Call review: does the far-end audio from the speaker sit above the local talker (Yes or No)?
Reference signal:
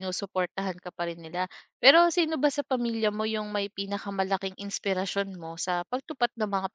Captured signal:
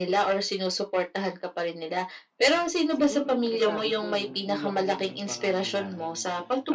Yes